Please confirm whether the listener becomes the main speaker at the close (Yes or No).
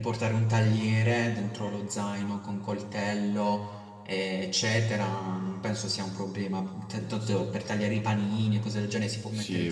Yes